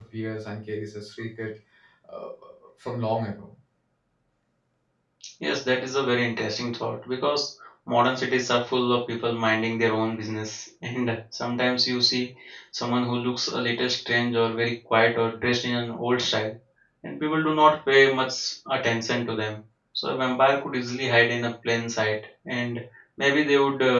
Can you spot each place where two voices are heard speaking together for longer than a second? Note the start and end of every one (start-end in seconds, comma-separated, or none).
none